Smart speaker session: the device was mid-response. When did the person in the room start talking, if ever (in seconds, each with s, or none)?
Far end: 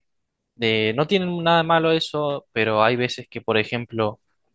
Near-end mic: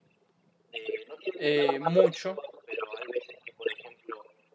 1.3 s